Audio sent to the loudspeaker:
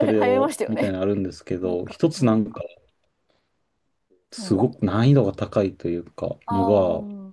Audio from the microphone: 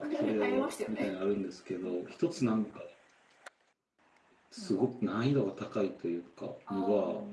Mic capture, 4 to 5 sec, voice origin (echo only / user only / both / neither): echo only